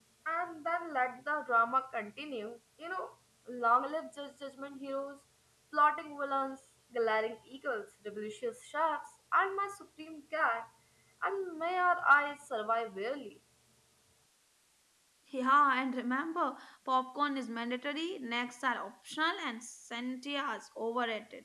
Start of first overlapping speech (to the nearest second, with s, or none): none